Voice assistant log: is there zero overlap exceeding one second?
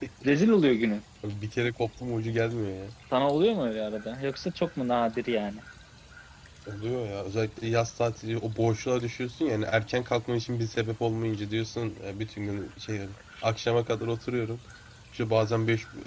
Yes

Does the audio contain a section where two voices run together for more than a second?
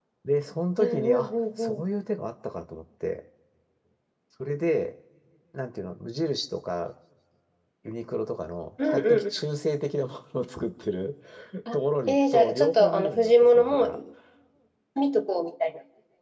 Yes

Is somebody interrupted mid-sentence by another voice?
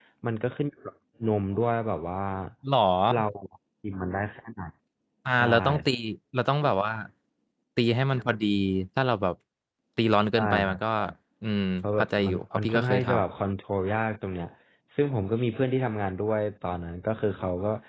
Yes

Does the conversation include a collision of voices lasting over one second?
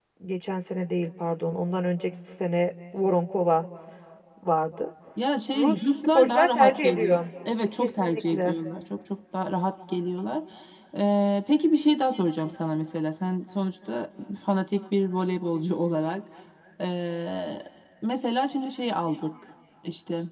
Yes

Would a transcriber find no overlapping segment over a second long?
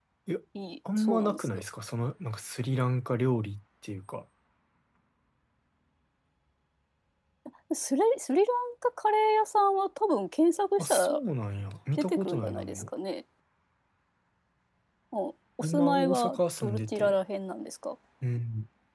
No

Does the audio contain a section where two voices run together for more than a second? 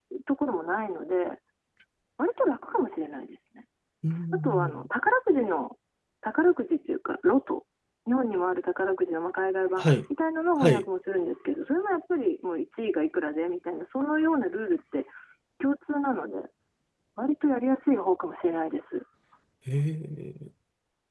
No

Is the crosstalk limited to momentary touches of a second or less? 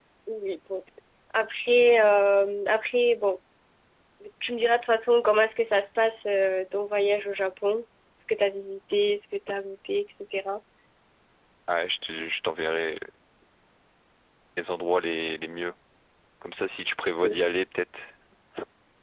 Yes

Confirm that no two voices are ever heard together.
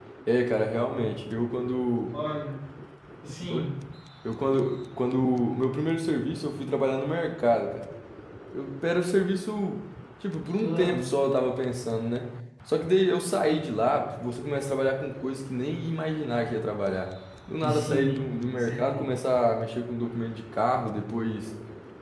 No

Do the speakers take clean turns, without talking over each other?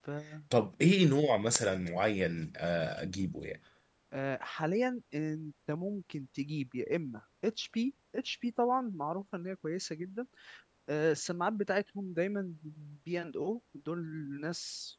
Yes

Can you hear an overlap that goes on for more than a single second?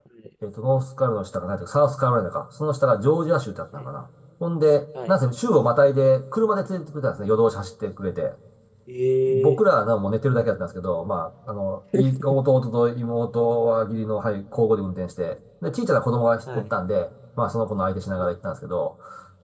No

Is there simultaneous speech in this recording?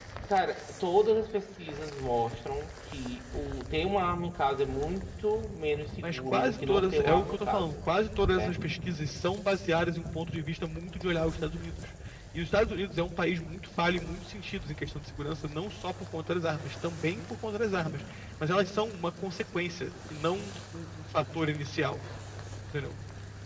Yes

